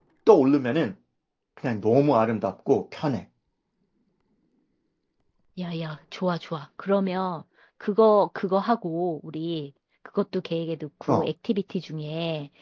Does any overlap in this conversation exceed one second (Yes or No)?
No